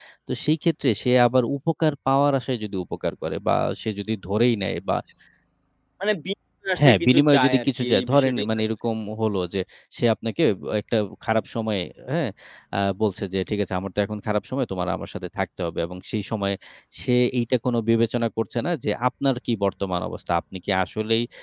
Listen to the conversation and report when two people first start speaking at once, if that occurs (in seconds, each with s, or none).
6.8 s